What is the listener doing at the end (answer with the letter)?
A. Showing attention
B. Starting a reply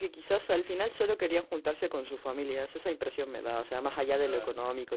A